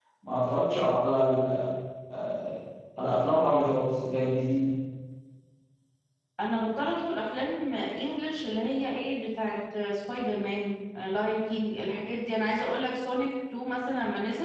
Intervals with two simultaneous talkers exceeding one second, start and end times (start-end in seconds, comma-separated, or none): none